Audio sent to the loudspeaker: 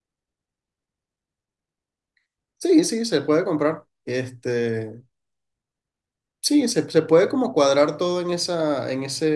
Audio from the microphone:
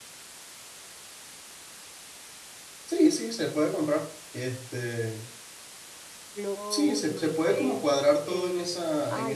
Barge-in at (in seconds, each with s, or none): 6.3 s